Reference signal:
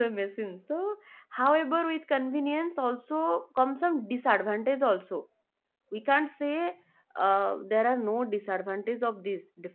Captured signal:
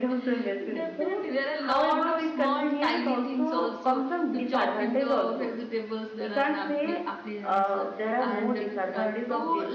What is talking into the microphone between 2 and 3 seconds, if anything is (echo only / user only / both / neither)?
both